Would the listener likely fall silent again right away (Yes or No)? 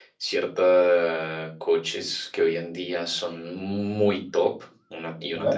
Yes